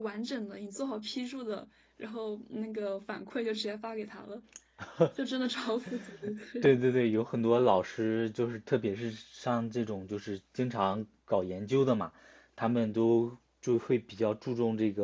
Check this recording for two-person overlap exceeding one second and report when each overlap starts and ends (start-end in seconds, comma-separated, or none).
none